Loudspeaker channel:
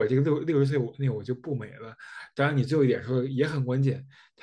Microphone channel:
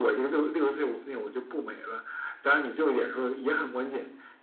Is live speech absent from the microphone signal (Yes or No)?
Yes